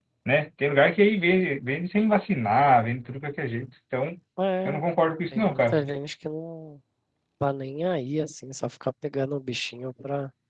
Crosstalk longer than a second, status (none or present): none